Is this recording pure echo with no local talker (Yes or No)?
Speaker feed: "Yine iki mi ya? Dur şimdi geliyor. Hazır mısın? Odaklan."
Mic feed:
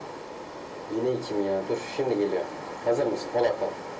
Yes